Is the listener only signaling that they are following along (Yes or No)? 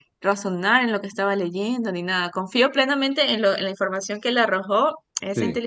Yes